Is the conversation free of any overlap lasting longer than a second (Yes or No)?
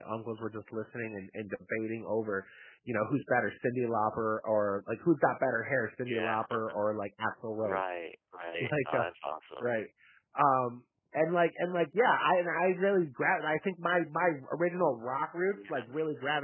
Yes